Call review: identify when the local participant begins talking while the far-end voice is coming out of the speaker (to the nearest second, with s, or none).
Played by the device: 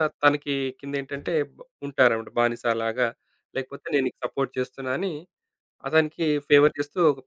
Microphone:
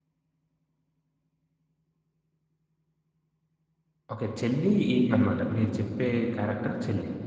4 s